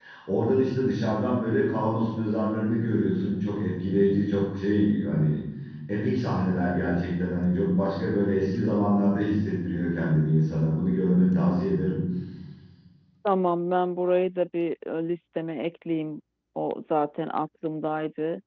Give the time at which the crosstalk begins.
none

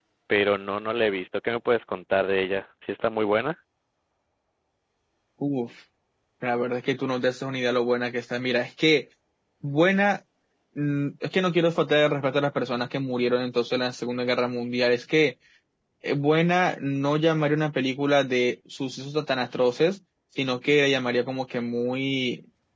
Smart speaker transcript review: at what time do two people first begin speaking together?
none

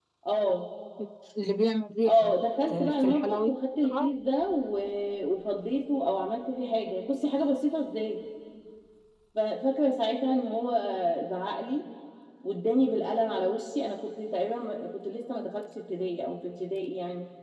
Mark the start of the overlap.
2.0 s

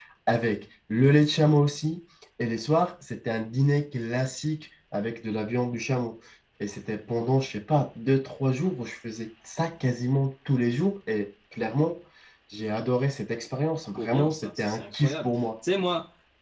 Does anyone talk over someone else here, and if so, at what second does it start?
14.0 s

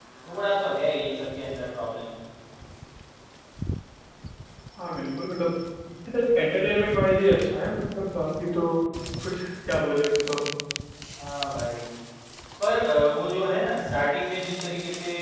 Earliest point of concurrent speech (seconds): none

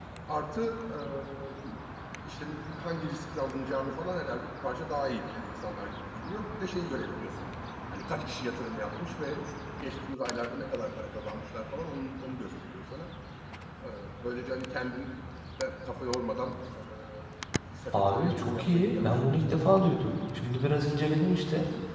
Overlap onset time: 17.9 s

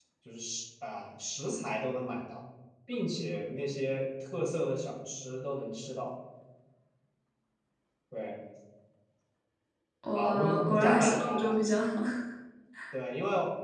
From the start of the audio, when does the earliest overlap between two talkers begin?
10.1 s

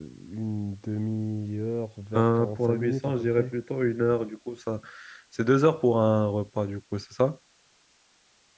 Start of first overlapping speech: 2.1 s

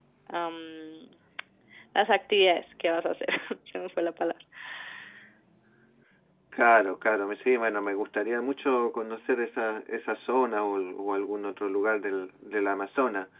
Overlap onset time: none

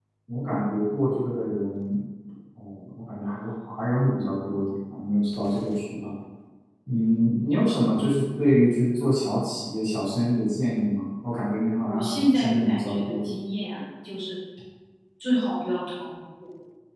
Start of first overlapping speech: 11.7 s

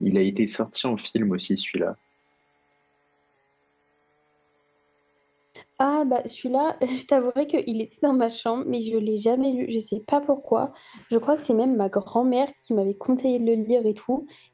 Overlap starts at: none

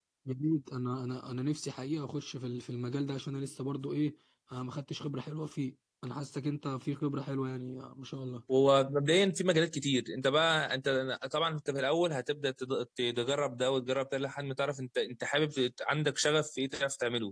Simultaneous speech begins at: none

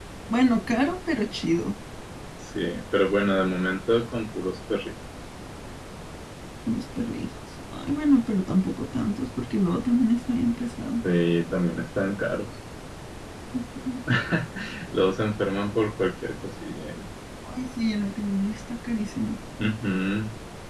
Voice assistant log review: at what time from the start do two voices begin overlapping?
none

